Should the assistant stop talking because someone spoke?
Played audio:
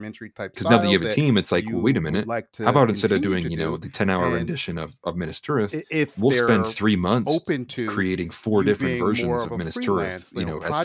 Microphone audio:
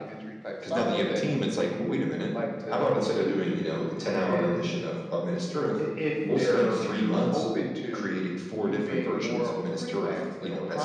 No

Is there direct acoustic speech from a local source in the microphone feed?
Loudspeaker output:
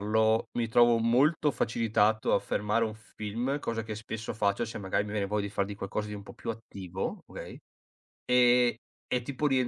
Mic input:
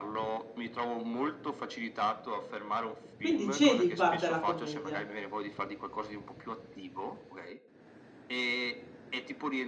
Yes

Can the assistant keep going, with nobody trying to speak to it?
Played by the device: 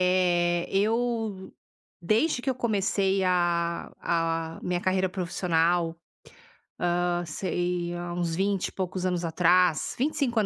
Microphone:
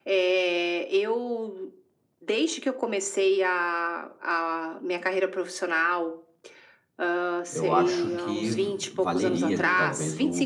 No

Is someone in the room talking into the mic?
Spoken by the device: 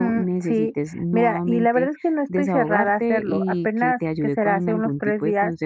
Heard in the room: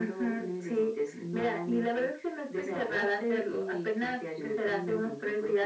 No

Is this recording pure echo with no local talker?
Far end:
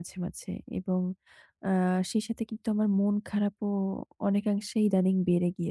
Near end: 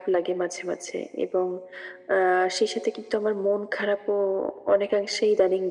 Yes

